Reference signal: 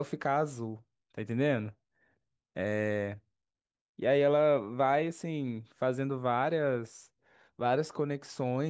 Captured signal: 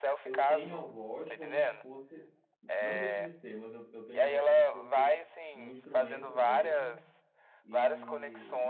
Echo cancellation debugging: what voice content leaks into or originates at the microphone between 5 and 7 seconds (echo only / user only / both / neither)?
both